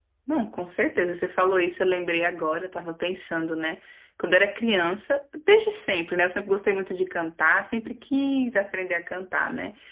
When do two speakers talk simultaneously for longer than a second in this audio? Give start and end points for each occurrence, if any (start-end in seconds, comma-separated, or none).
none